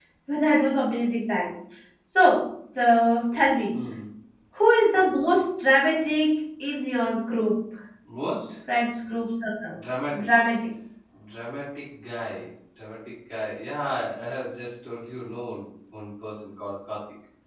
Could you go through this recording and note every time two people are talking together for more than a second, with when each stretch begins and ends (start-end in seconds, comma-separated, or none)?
none